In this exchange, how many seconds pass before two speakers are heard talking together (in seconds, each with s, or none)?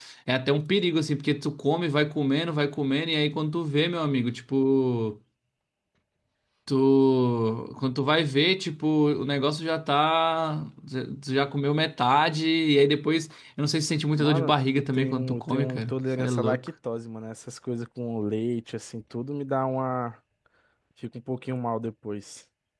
14.1 s